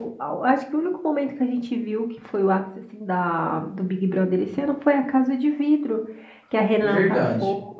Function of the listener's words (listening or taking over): listening